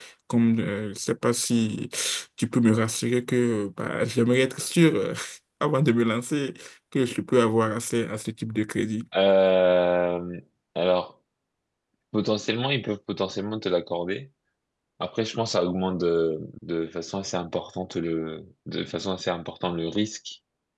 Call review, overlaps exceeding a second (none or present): none